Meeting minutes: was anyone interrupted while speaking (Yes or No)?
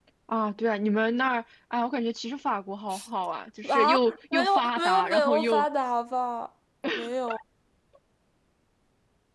Yes